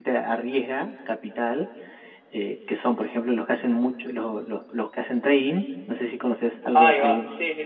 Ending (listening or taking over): taking over